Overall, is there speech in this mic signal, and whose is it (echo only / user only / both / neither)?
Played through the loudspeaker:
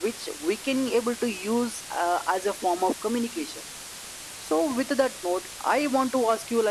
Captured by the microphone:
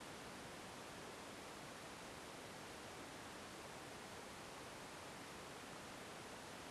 neither